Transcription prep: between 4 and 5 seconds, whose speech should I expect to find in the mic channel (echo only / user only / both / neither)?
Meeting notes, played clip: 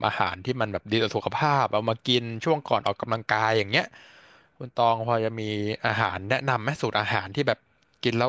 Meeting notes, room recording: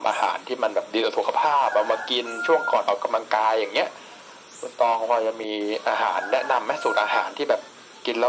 echo only